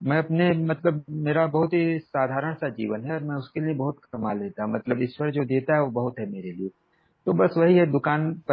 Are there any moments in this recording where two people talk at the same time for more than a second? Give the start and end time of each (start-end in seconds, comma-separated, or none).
none